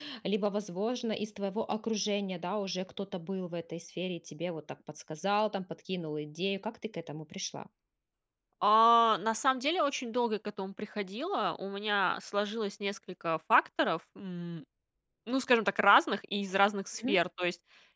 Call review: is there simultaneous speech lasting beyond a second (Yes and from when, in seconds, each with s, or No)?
No